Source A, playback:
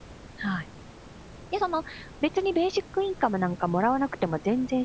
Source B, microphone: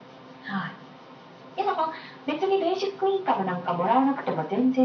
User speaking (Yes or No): No